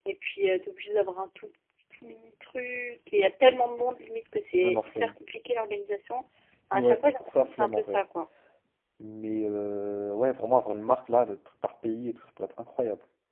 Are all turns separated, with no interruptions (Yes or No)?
No